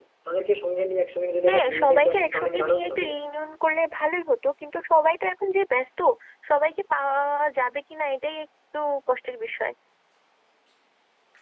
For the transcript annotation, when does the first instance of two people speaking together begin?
1 s

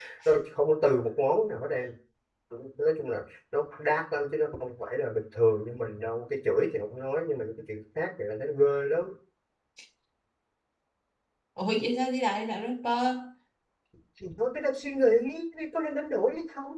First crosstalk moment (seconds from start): none

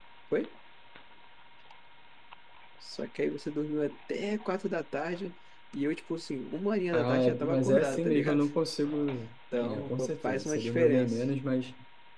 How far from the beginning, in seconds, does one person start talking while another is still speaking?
7 s

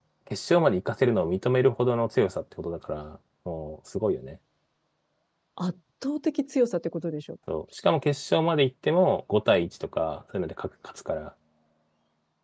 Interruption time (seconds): none

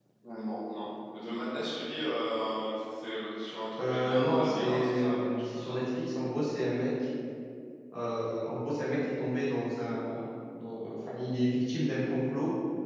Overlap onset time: 4 s

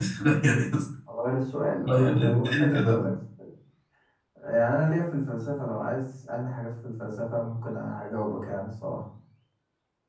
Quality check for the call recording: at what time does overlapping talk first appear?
2 s

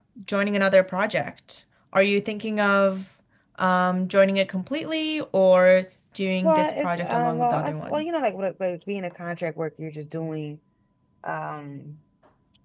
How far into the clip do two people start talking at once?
6 s

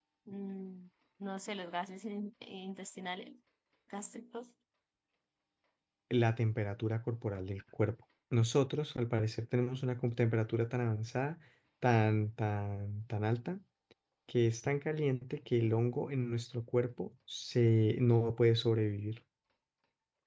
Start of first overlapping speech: none

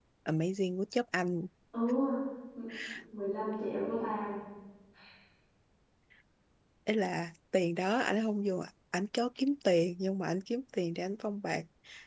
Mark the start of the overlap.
none

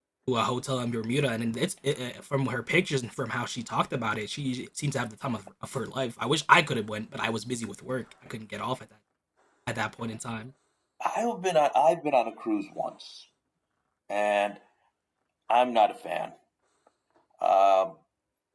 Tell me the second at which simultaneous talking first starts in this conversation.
none

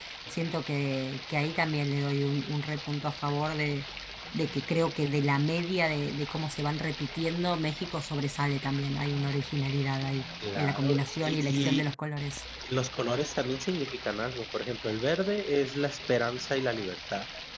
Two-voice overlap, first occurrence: 10 s

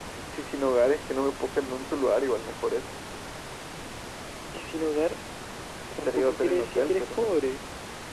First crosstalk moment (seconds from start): 6 s

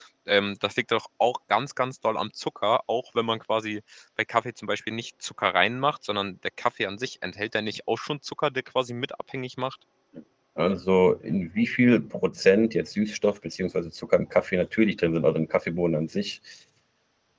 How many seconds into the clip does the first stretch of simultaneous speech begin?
none

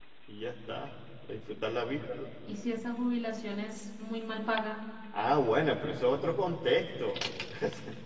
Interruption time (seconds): none

